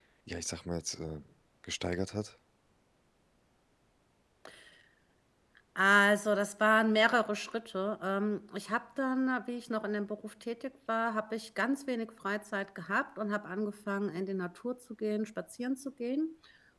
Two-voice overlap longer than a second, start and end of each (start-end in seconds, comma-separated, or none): none